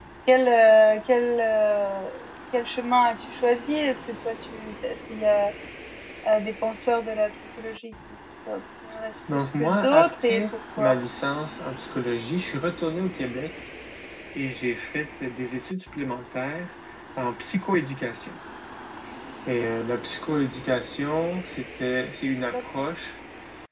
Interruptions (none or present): present